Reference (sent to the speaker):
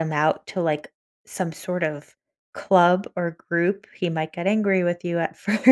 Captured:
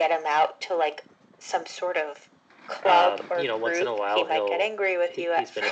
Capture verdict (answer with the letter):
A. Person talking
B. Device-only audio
A